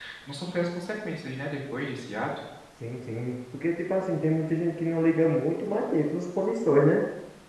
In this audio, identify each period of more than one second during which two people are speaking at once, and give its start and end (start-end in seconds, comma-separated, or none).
none